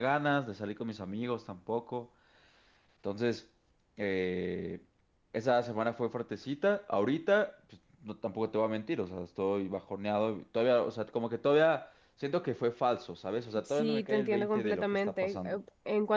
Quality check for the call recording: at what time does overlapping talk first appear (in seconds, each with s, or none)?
13.7 s